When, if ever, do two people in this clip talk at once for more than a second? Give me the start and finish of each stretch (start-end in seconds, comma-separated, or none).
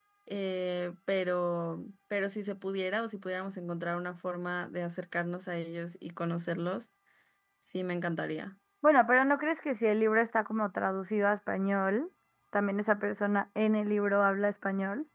none